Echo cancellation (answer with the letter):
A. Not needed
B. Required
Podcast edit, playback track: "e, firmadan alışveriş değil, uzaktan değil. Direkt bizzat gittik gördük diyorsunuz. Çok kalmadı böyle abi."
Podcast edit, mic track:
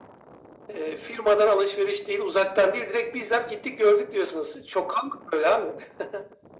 B